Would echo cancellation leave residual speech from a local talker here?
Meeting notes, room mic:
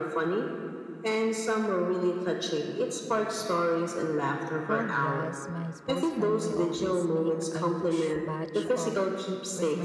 Yes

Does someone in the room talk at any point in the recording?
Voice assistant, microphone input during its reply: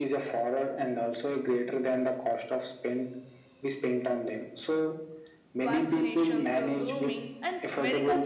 Yes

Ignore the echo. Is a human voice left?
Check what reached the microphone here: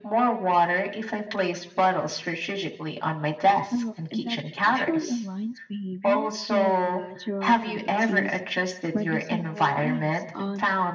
Yes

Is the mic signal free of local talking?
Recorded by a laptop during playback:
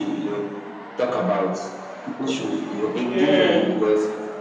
No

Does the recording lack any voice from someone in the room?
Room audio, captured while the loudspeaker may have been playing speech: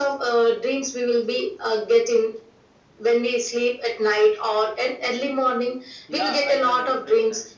No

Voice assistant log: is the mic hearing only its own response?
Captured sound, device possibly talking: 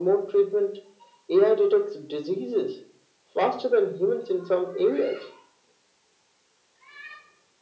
Yes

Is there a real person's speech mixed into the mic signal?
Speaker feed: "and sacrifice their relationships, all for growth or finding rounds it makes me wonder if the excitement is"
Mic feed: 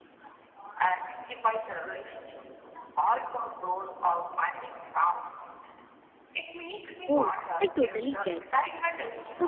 Yes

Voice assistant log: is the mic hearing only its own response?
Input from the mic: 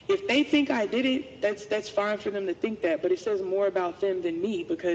Yes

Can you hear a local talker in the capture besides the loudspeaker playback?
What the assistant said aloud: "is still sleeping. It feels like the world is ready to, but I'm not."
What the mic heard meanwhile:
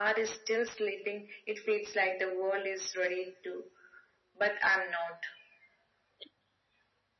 No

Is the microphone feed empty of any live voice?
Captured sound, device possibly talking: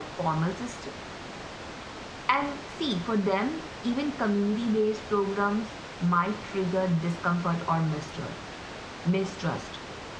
No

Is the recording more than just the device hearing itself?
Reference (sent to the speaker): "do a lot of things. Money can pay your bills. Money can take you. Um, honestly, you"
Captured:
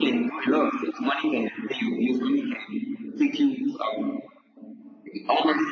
No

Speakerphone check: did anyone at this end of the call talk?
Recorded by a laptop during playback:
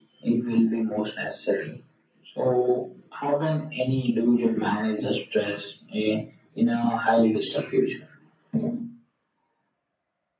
No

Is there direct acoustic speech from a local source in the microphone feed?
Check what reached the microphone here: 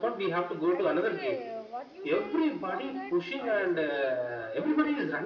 Yes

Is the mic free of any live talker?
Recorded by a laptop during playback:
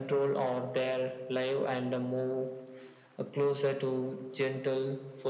Yes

